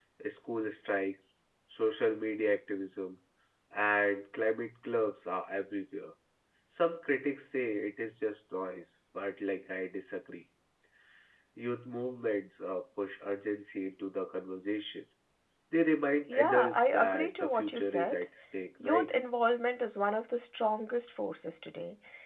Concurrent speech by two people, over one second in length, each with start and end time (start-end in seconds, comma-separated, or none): 16.3-18.1